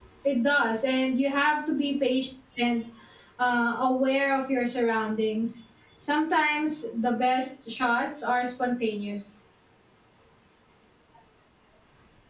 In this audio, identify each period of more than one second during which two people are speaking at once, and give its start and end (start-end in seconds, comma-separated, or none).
none